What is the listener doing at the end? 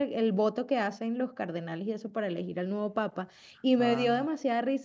listening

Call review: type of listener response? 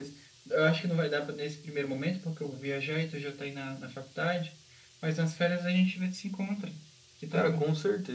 taking over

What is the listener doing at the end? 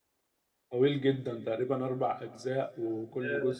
listening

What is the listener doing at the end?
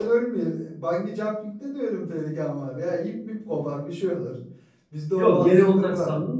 taking over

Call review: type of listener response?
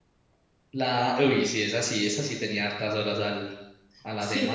taking over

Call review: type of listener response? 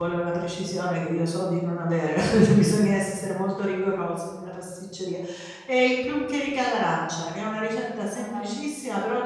listening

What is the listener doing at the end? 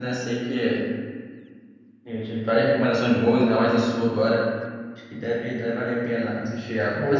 listening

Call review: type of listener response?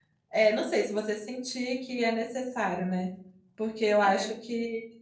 listening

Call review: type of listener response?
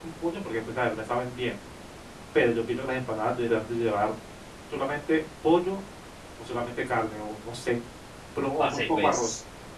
taking over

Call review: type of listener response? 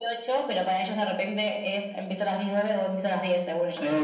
taking over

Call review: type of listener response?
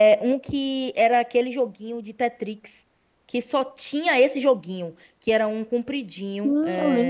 taking over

